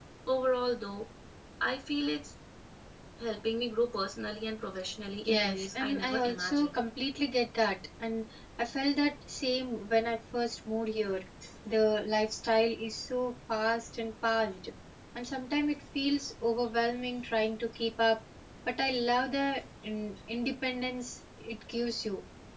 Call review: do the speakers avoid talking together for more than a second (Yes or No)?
No